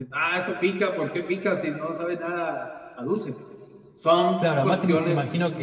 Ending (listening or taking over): taking over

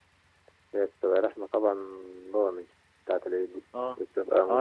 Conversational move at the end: taking over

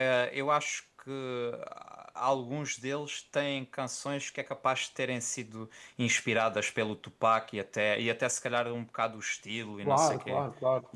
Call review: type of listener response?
taking over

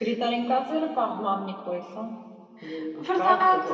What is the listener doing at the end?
taking over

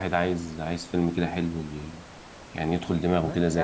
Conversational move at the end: taking over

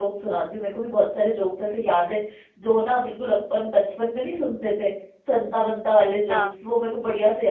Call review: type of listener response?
listening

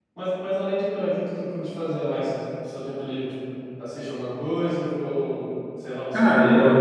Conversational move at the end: taking over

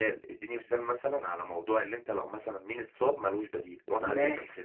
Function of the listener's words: taking over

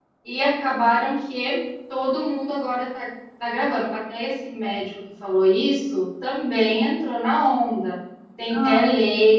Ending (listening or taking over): listening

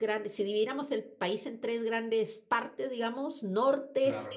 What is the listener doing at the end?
listening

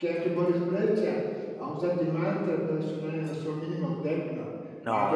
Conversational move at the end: listening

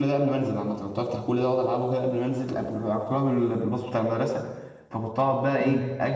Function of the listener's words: listening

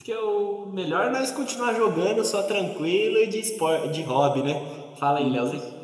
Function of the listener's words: taking over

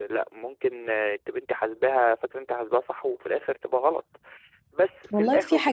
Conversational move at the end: taking over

